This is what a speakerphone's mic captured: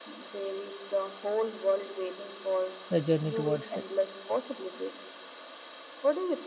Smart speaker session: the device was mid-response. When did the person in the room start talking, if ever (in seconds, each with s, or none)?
2.9 s